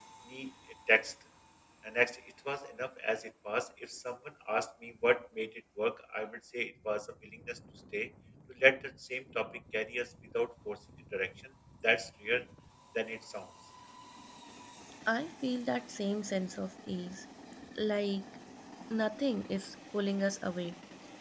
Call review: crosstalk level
none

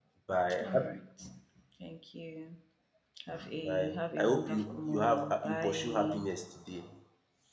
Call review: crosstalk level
present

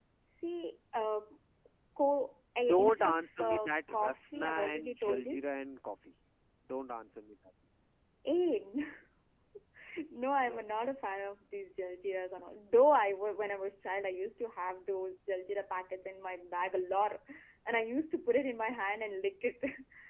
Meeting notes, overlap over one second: present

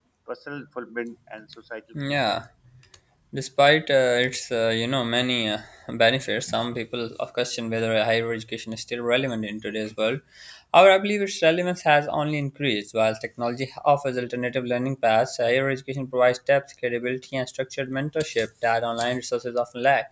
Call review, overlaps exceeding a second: none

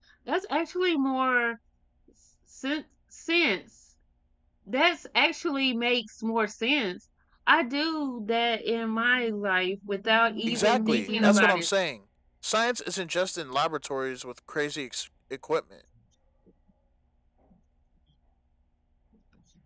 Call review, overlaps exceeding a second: present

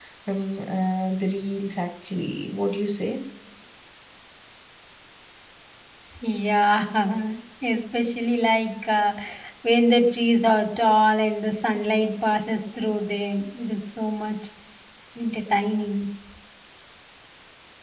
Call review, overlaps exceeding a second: none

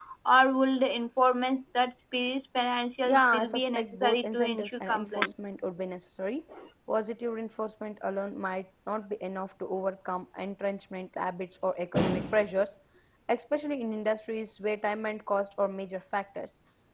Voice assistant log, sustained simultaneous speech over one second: present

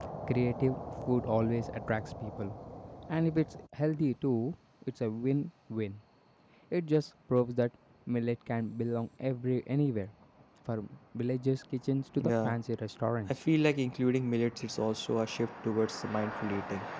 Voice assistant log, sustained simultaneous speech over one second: none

